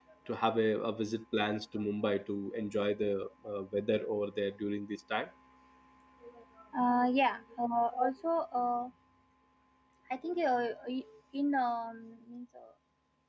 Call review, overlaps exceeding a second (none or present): none